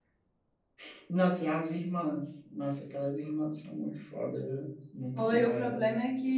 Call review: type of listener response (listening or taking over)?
taking over